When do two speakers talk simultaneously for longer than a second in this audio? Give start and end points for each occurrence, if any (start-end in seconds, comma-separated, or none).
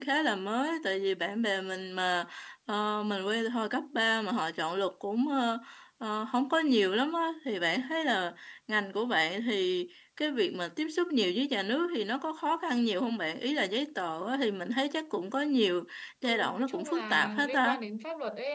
16.2-17.8